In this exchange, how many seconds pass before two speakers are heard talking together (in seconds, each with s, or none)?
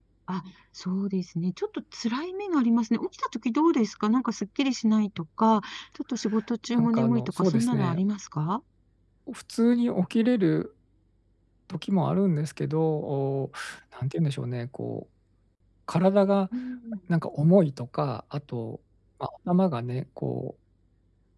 6.8 s